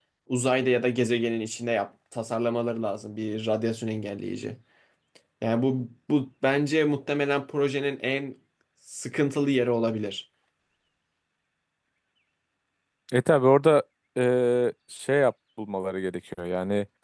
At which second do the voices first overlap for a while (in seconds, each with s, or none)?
none